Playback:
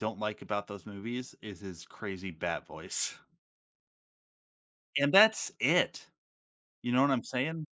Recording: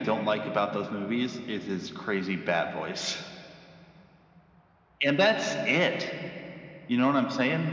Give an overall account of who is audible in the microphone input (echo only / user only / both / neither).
echo only